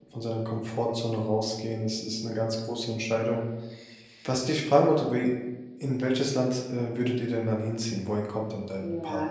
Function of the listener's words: taking over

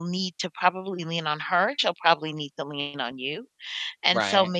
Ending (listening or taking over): listening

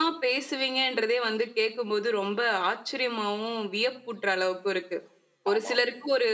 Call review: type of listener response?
listening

